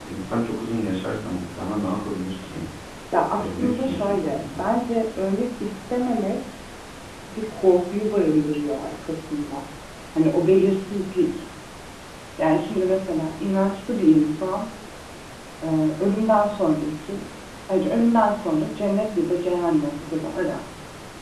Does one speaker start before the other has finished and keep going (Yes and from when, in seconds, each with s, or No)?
Yes, from 3.4 s